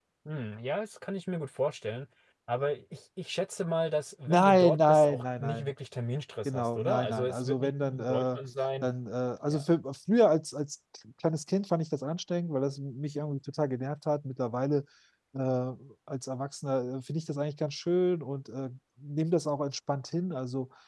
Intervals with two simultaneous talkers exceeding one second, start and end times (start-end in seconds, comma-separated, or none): 4.3-5.7, 6.5-8.4